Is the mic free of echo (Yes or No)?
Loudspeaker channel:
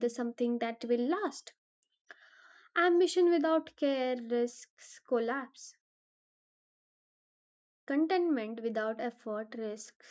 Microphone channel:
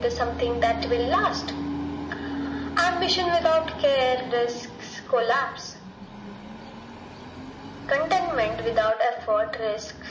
No